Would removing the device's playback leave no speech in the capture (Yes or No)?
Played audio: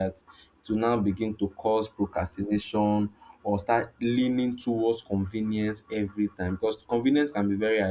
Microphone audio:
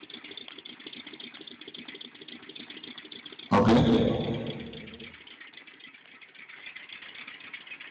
No